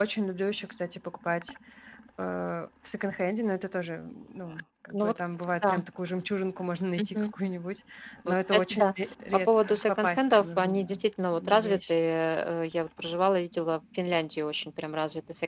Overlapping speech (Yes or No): Yes